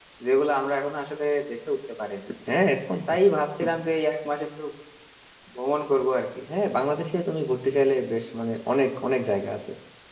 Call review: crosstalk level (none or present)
none